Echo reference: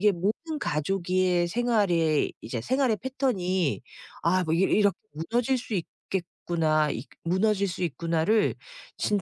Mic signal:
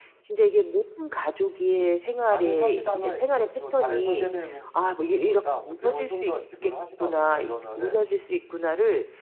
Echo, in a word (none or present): present